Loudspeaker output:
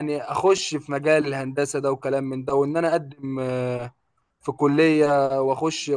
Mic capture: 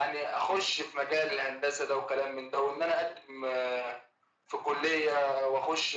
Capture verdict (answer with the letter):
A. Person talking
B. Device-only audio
B